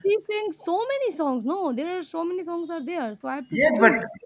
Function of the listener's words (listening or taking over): taking over